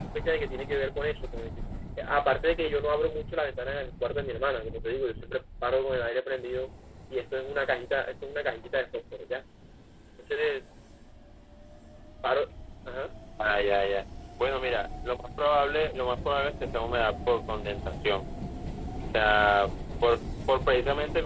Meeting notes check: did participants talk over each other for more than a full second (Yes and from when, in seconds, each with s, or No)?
No